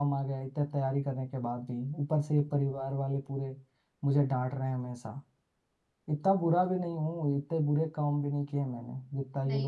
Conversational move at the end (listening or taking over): taking over